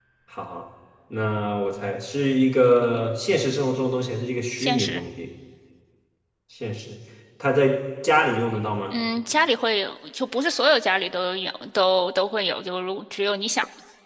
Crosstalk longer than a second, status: none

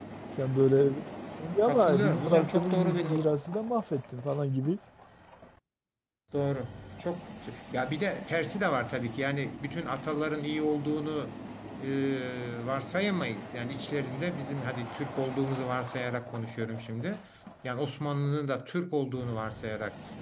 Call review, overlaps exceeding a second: present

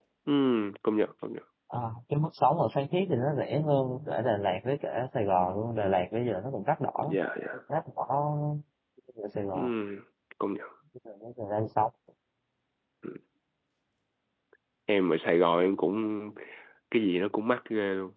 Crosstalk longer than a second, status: none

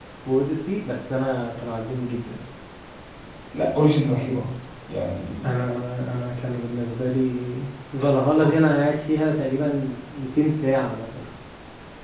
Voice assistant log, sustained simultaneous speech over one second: none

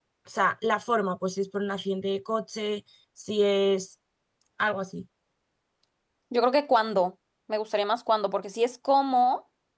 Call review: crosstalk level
none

